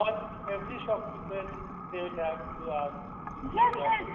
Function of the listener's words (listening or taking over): taking over